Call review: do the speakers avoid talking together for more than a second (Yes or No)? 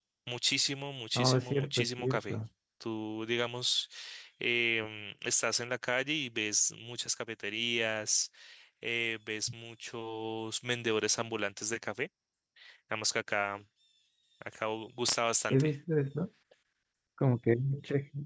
No